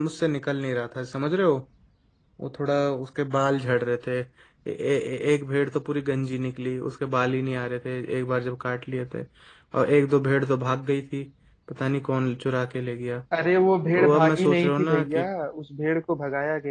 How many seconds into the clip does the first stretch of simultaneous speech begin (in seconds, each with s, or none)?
13.9 s